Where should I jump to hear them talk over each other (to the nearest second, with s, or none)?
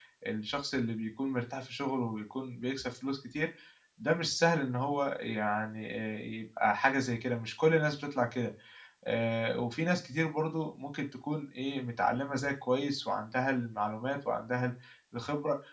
none